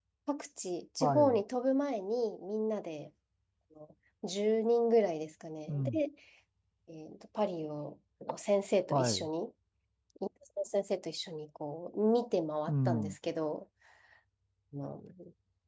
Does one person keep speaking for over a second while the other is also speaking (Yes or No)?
No